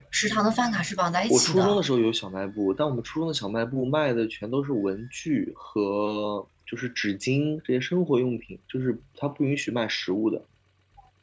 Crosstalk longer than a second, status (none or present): none